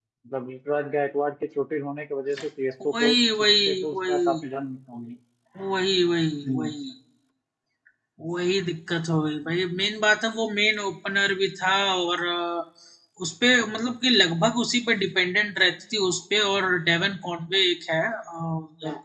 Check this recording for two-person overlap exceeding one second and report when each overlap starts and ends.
2.9-4.4

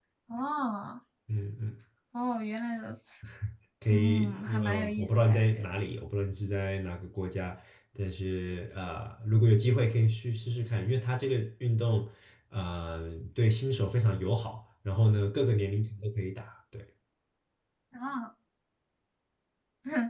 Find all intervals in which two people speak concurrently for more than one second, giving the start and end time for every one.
3.9-5.7

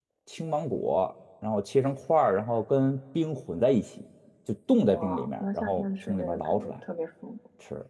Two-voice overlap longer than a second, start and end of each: 4.8-6.8

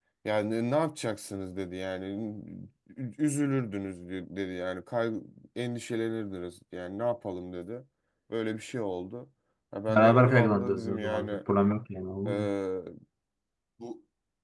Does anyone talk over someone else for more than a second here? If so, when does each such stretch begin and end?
9.9-11.3

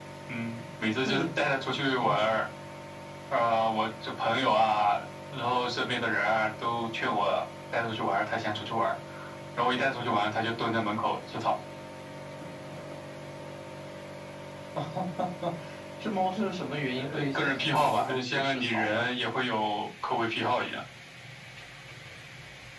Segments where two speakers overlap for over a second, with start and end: 17.0-19.1

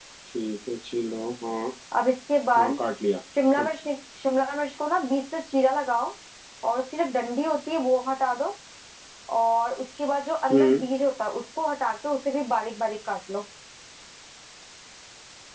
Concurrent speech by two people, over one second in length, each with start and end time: none

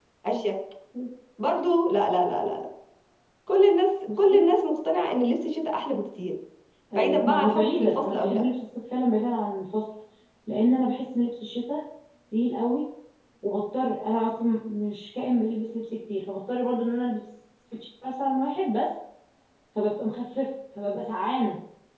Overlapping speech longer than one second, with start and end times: 6.9-8.4

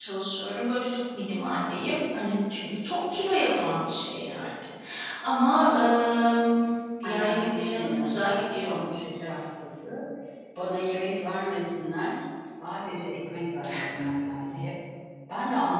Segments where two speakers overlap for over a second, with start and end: 7.0-8.8

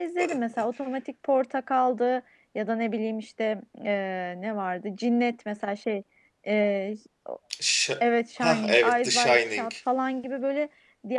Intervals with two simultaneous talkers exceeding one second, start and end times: 8.4-9.7

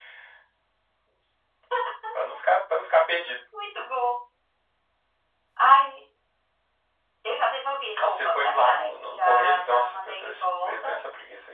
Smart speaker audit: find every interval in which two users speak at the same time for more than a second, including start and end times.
7.9-11.0

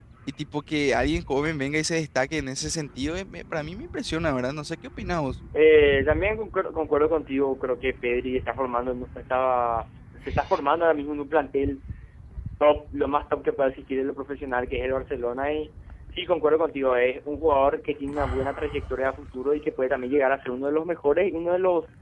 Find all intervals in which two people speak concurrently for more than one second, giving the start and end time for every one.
none

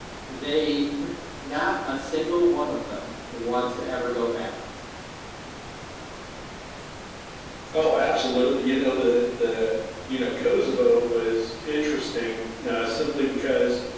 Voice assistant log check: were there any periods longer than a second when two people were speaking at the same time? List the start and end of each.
none

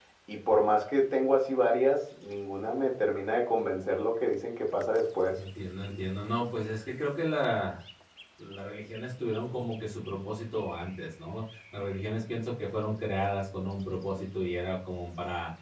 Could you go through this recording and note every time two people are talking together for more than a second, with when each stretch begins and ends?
none

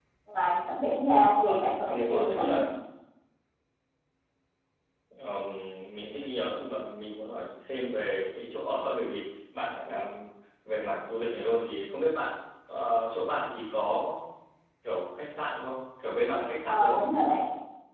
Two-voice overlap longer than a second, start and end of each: 1.3-2.6

